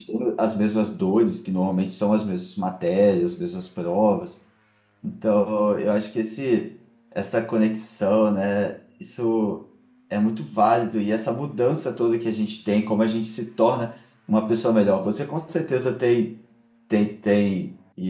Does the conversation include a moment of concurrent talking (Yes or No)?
No